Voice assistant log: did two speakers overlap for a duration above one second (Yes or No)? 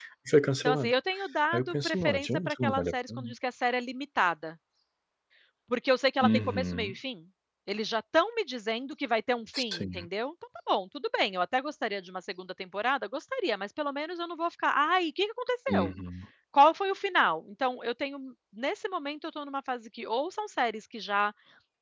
Yes